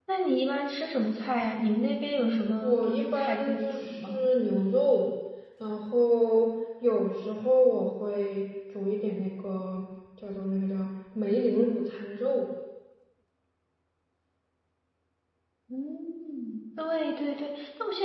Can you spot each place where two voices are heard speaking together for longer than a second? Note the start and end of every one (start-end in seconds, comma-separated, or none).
2.6-4.3